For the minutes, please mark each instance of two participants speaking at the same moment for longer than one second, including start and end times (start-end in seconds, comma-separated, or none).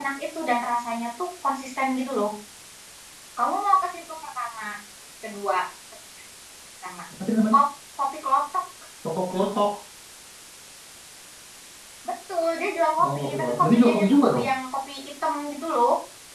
13.0-14.5